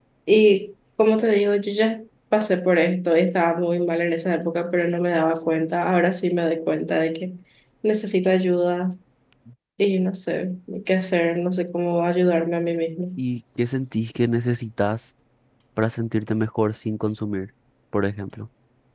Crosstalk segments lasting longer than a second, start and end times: none

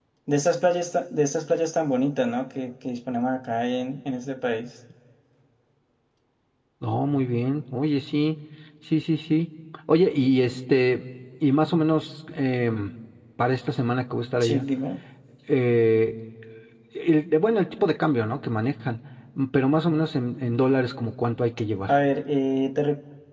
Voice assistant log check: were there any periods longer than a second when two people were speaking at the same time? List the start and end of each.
none

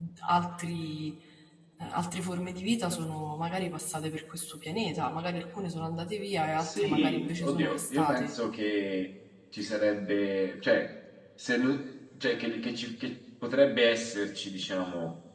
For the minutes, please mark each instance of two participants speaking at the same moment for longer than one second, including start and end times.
6.6-8.3

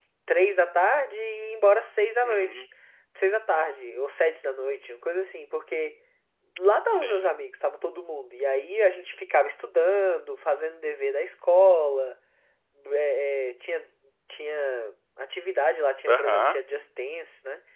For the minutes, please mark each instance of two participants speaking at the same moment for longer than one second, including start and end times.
none

